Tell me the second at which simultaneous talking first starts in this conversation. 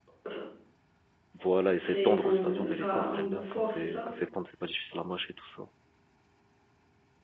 2 s

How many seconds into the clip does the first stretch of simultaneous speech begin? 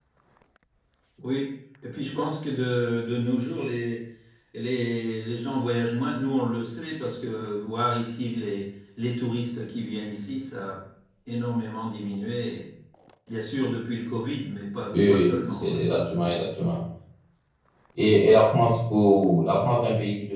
15 s

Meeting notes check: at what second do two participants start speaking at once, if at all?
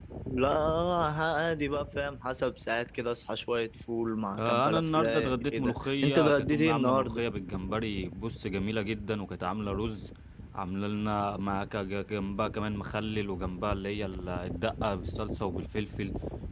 4 s

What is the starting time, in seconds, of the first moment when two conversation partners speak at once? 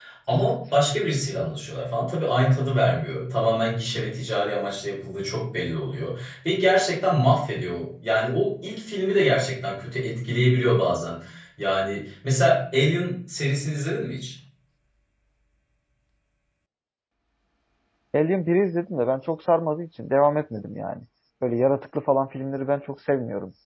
none

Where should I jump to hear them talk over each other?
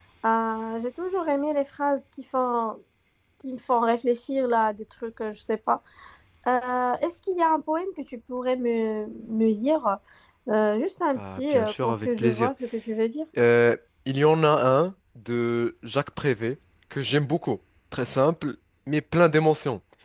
11 s

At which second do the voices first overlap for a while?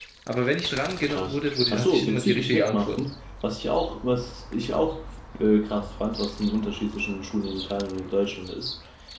1 s

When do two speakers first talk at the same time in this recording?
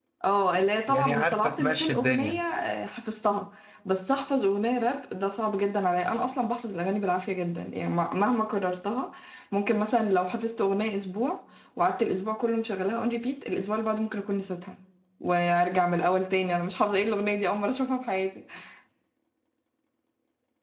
1 s

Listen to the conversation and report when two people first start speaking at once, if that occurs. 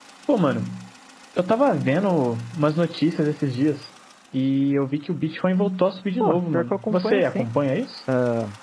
6 s

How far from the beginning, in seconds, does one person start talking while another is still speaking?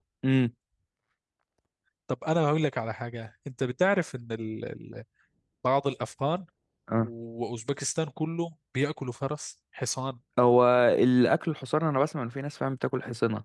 none

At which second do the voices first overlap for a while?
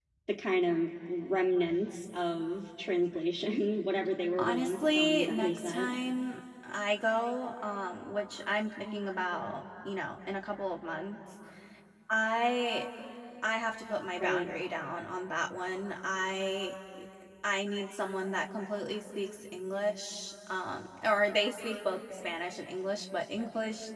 4 s

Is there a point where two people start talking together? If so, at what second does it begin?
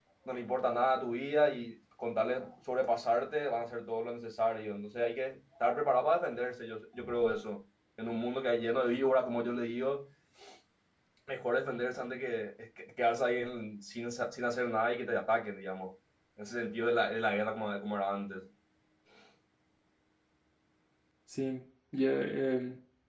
none

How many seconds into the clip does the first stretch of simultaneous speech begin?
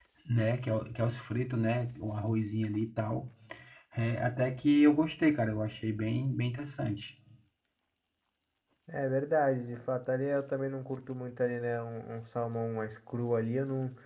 none

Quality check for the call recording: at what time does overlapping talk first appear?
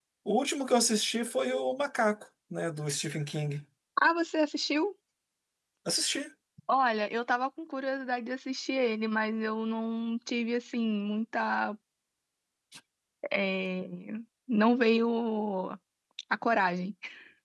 none

